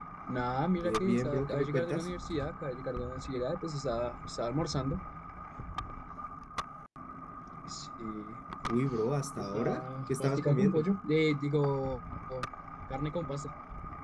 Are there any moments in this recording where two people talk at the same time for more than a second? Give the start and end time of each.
0.8-2.1, 9.4-10.8

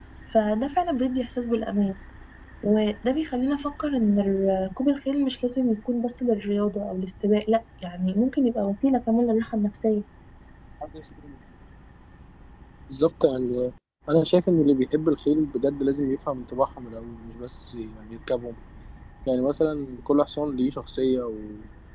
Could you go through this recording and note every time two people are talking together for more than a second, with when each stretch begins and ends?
none

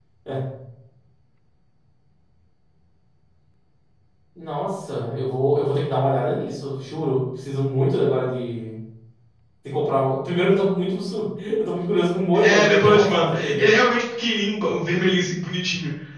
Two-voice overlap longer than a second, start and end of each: 12.3-13.7

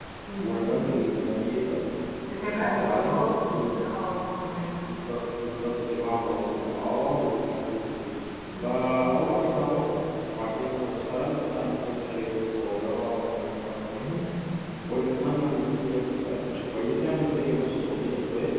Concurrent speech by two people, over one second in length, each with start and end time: 2.4-3.8

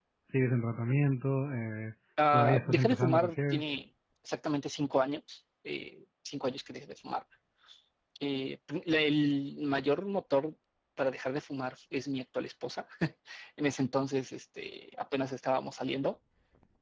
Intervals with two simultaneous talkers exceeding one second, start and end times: 2.3-3.6

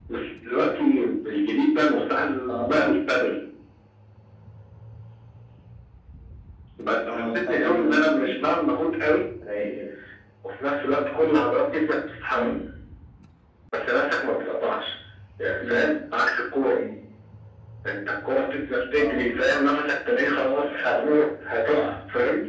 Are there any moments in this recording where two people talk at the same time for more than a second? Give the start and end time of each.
7.1-8.4

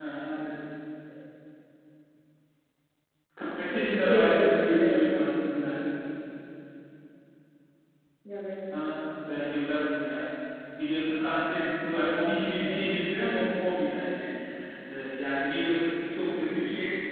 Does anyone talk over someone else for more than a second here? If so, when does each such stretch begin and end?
3.7-5.2

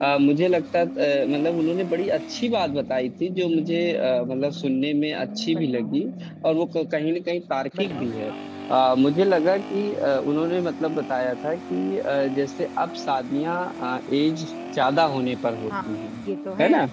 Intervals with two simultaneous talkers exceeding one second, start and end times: none

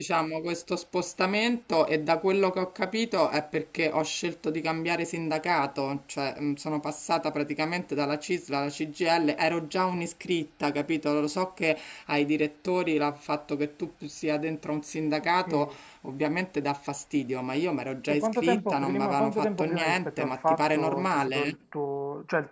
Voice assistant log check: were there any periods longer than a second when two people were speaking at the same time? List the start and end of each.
18.1-21.6

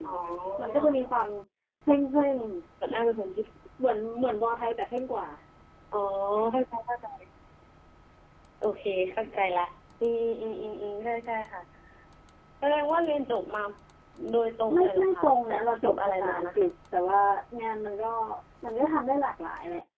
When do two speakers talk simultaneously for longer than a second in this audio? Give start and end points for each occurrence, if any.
14.7-16.7

